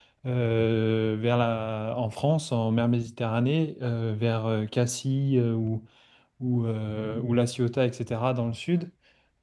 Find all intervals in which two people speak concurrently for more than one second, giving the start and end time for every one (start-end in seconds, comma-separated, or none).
none